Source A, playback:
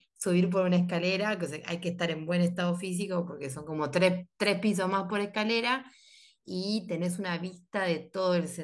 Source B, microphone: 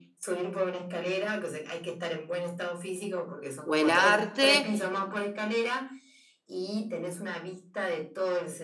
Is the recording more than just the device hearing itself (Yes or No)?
Yes